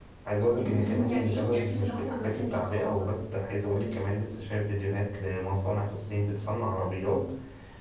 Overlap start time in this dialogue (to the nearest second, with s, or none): 1 s